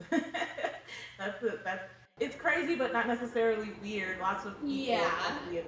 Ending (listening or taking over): listening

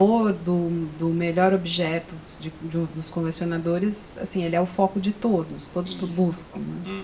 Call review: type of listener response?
taking over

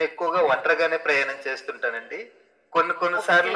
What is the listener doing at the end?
listening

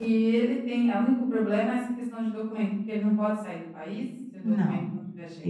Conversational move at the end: taking over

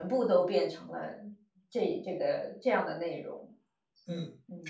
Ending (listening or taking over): taking over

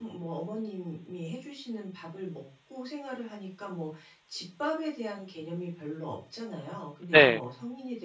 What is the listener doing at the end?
listening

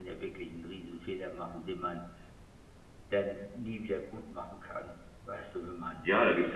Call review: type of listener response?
taking over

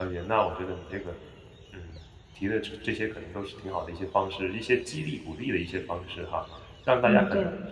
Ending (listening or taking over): listening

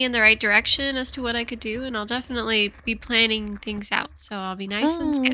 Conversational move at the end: taking over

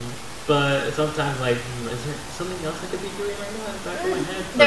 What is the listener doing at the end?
taking over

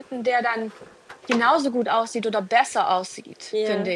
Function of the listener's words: taking over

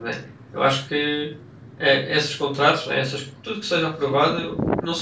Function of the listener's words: listening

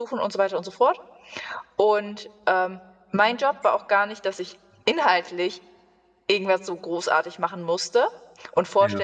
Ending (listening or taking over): listening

